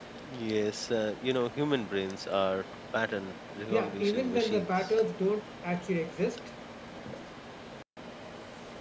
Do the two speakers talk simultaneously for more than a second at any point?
Yes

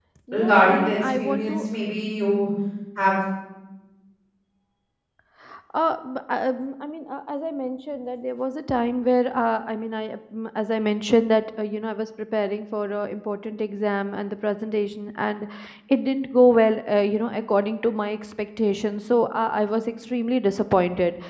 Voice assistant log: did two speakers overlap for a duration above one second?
Yes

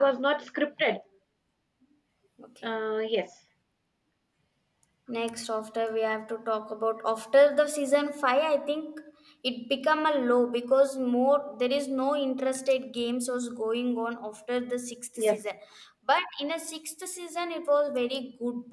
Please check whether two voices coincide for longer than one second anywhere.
No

